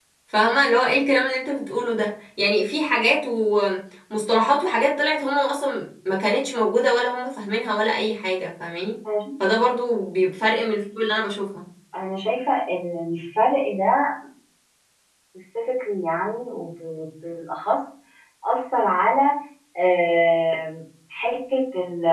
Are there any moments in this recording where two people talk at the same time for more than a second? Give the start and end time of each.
none

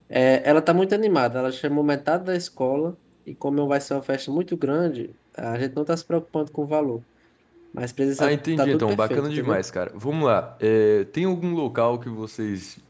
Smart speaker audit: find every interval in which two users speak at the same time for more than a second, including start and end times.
8.2-9.6

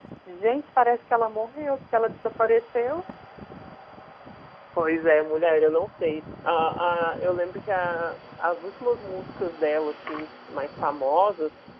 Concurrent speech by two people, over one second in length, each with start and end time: none

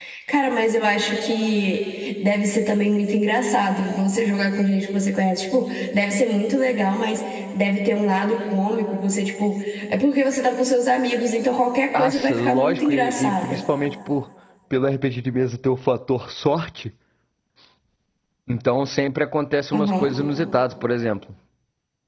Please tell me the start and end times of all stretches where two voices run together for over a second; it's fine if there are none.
11.9-13.6

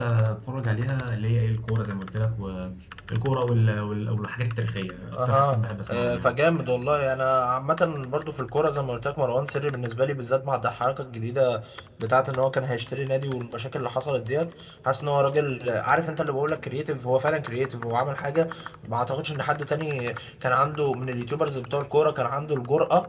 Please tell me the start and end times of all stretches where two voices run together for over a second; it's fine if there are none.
5.2-6.4

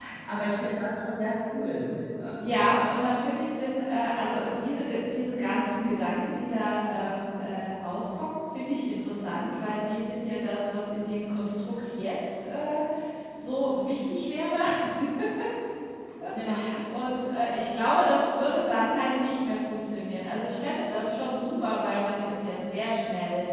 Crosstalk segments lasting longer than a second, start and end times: none

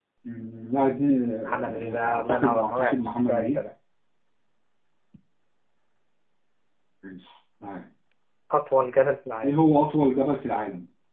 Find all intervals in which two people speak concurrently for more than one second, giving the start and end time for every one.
1.5-3.6

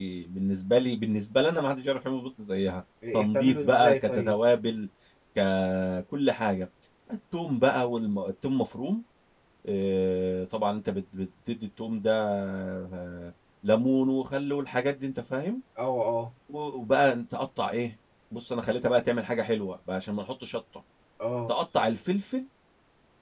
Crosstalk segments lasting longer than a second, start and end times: 3.1-4.4

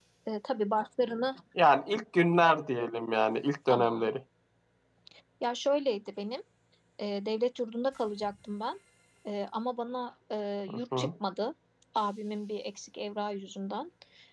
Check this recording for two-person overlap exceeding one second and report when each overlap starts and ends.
none

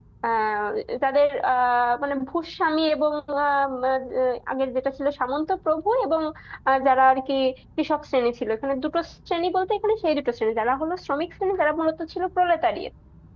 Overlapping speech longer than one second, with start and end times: none

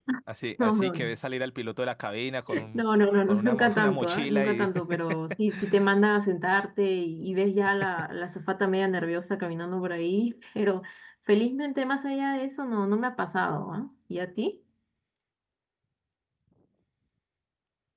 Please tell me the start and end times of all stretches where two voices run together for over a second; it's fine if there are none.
3.3-4.7

